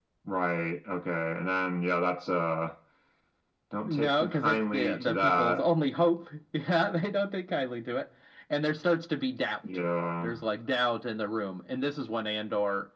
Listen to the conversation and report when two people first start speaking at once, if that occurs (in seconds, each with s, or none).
3.9 s